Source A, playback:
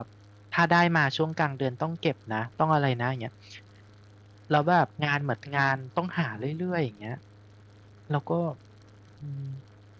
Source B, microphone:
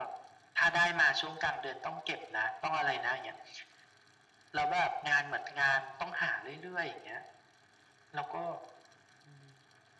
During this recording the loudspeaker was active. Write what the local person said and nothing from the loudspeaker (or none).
none